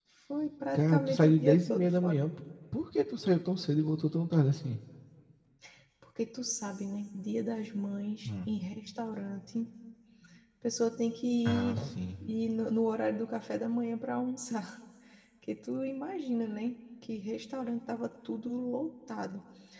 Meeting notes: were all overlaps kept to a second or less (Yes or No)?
No